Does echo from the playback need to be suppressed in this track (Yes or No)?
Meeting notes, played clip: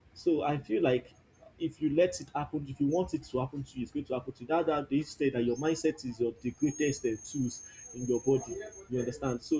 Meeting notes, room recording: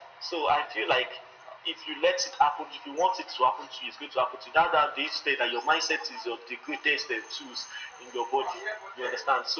Yes